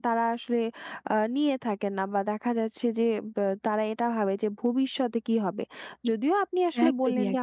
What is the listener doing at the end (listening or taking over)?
listening